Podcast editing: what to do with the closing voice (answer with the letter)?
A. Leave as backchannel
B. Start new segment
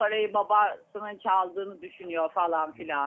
B